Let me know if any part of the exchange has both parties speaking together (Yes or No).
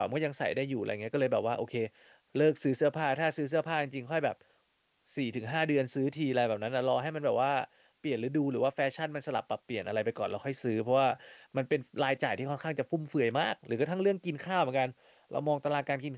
No